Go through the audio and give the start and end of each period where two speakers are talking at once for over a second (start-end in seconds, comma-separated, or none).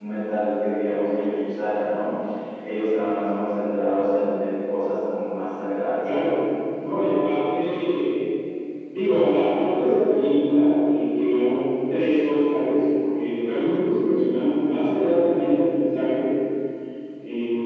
none